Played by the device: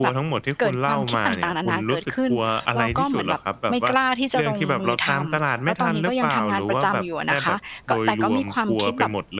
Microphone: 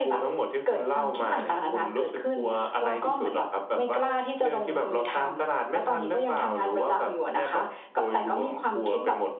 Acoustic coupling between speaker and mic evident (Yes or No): Yes